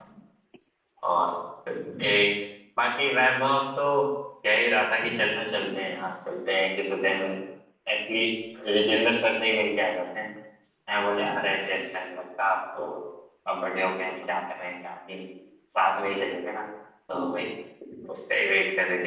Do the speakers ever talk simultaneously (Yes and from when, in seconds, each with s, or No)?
No